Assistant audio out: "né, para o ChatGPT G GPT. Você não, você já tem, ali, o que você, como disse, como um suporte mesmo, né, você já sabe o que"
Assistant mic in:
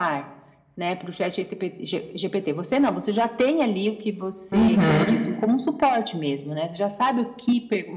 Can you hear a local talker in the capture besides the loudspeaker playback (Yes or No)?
Yes